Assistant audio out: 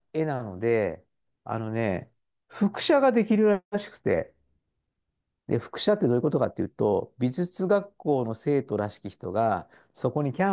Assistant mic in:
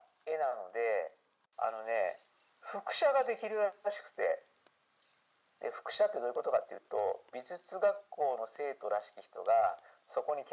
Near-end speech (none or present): none